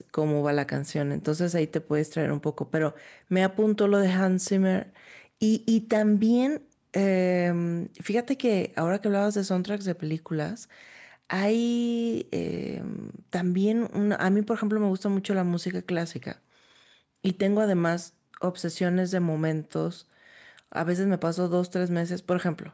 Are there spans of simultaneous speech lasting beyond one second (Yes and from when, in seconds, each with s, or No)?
No